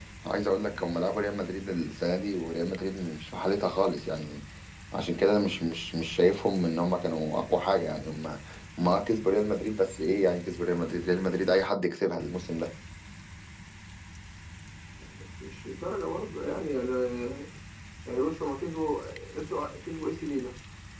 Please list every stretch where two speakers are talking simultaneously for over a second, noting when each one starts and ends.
none

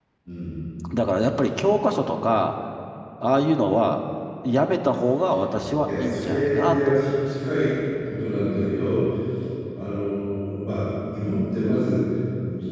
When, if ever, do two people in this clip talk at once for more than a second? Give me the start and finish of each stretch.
5.9-7.3

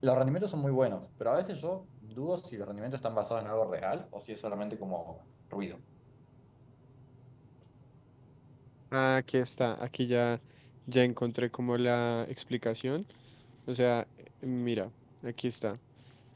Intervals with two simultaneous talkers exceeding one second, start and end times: none

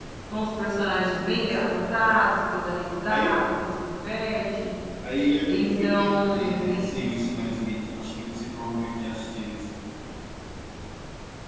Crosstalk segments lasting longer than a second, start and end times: 5.5-6.9

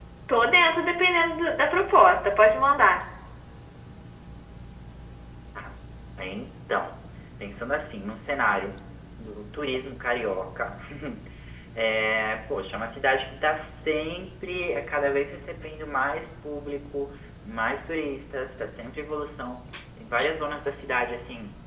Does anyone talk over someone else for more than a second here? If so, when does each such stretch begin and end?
none

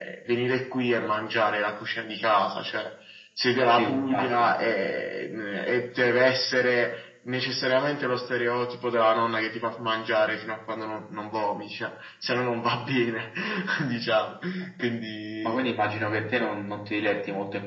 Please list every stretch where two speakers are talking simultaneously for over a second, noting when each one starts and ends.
3.8-5.0

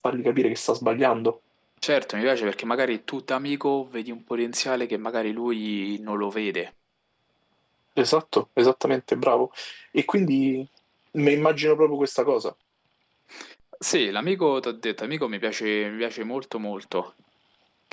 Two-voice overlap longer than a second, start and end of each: none

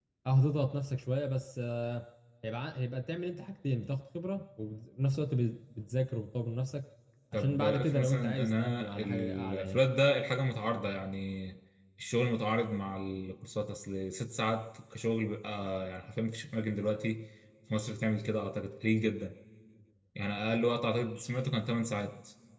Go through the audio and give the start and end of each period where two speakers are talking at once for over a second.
7.3-9.8

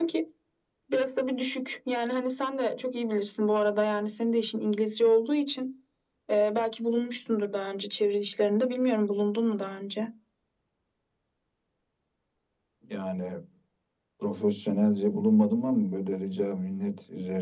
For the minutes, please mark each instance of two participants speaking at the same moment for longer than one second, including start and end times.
none

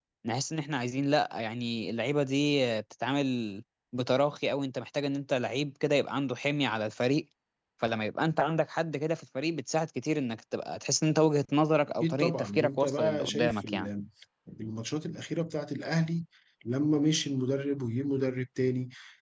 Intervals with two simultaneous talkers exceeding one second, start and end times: 12.0-13.9

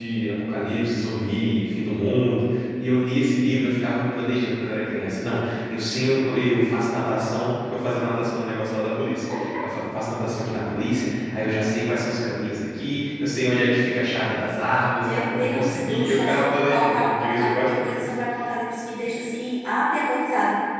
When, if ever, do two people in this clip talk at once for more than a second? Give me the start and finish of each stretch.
15.0-18.1

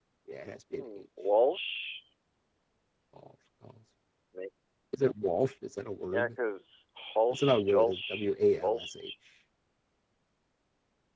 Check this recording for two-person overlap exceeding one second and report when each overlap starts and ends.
7.3-8.8

